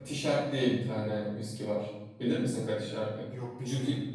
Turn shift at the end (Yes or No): No